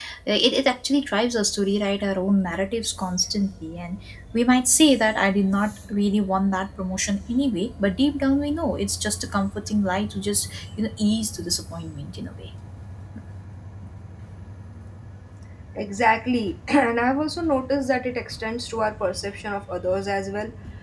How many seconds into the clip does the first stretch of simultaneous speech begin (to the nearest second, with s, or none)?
none